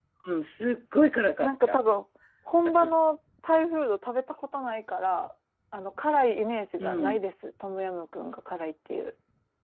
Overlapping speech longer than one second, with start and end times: none

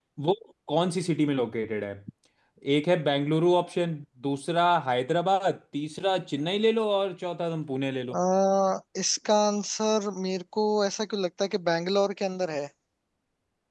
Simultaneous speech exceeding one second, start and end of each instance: none

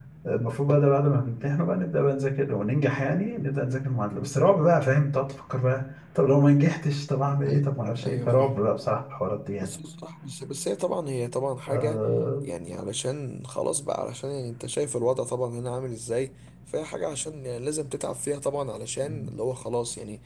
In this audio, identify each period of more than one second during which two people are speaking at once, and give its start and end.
none

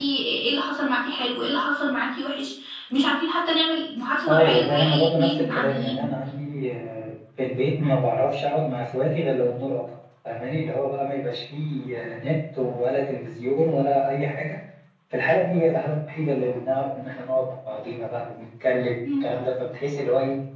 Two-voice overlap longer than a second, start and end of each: 4.3-6.0

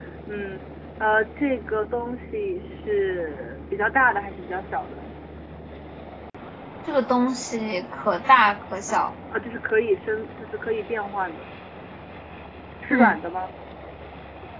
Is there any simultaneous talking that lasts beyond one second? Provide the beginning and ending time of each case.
none

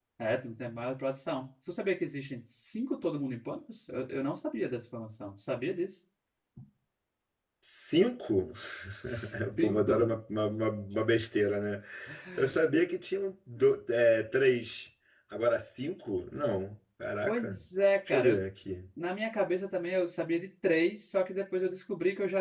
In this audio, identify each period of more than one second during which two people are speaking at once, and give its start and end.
none

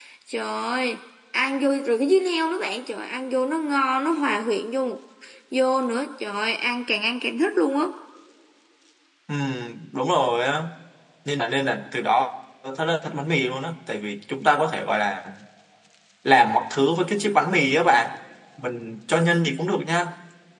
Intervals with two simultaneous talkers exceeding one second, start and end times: none

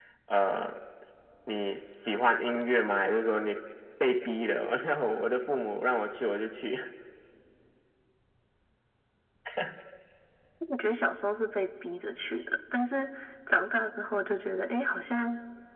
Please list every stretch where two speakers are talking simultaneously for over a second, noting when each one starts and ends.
none

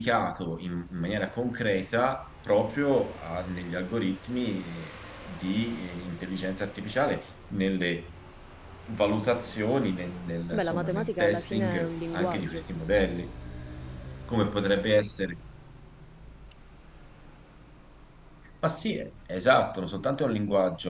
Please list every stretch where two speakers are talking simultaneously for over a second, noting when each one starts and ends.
10.5-12.6

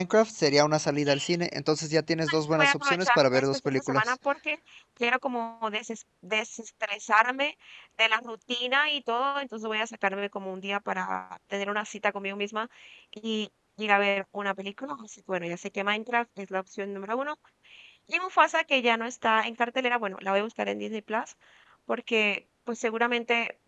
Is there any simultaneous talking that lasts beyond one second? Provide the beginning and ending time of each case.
2.5-4.1

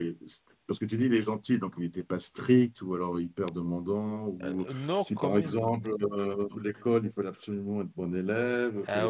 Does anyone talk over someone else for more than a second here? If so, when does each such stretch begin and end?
4.4-5.9

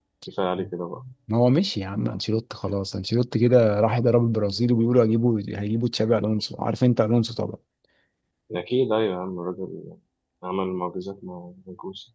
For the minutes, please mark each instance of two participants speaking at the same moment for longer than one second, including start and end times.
none

